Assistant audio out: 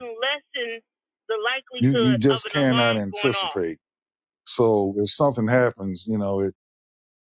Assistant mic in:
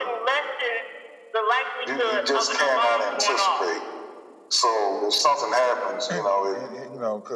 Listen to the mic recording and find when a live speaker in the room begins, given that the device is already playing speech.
6 s

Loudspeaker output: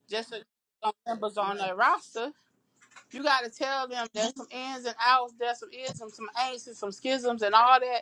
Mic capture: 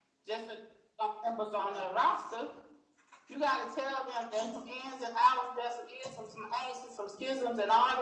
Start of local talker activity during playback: none

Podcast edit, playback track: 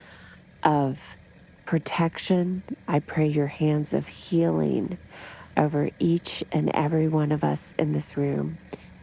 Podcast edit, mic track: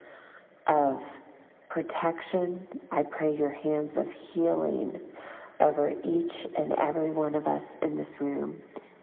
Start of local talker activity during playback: none

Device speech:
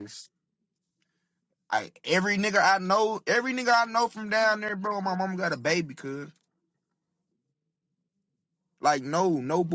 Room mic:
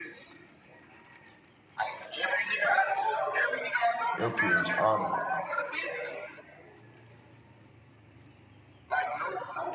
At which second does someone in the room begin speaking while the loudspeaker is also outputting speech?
4 s

